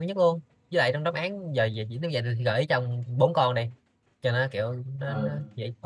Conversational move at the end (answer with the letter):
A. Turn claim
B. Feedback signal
A